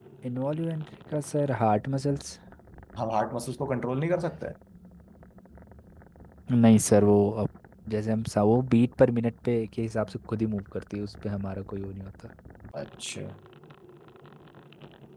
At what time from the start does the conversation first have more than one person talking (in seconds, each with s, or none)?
none